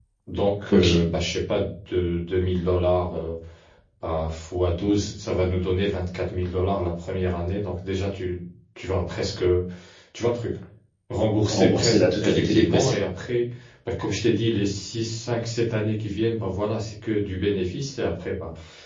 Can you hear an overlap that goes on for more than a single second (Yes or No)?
Yes